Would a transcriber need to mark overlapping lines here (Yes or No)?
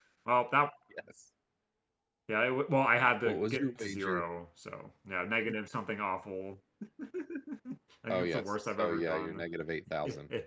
Yes